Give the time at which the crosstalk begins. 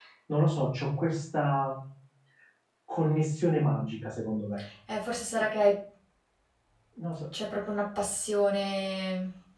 none

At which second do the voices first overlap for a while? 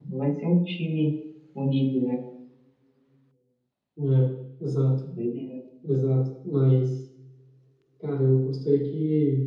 none

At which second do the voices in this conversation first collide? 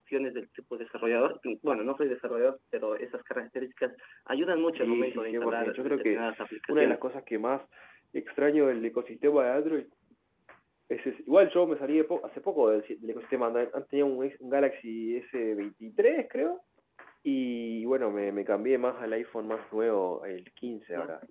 4.7 s

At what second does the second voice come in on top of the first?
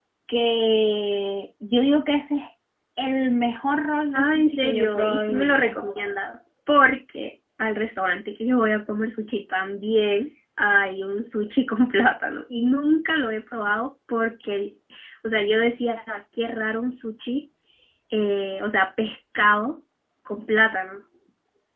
4.1 s

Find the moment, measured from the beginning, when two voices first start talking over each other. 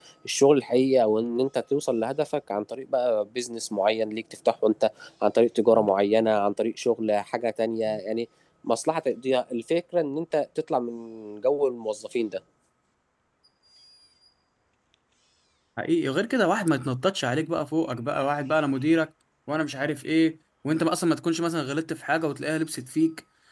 none

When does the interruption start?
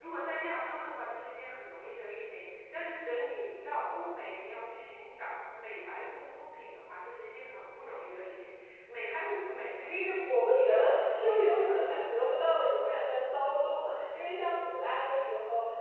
10.3 s

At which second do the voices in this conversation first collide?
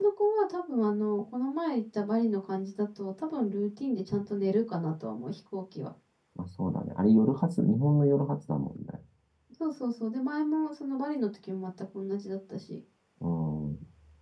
none

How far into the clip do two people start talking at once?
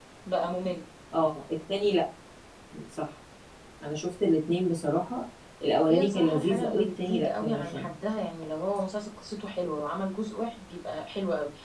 5.9 s

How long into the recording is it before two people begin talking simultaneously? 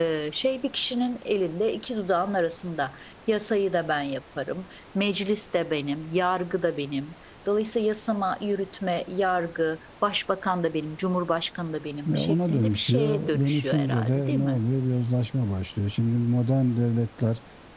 12.1 s

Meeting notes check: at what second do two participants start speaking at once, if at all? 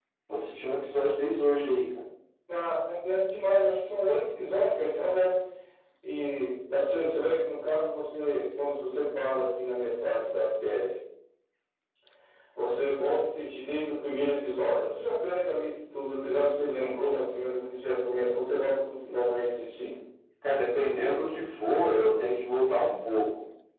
none

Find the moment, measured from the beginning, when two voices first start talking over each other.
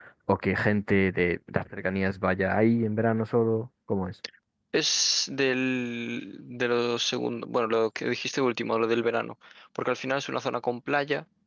none

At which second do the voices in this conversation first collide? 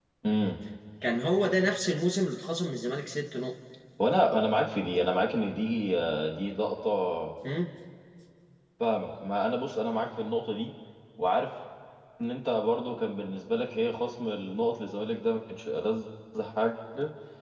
none

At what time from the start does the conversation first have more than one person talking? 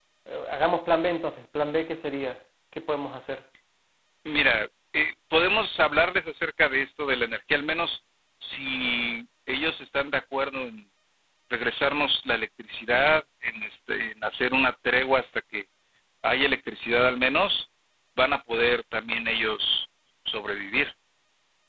none

